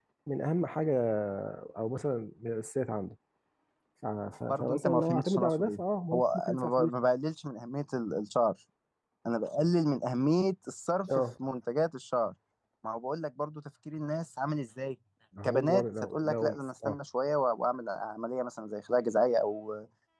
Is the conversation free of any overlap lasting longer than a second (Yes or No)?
No